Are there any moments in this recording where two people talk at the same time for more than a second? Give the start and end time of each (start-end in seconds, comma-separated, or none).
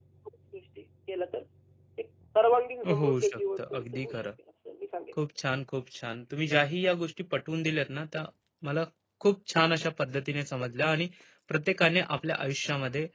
2.9-4.3